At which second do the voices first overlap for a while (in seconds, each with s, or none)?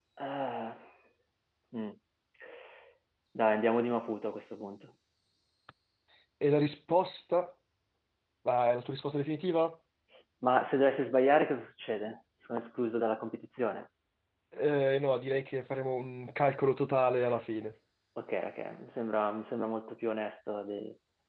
none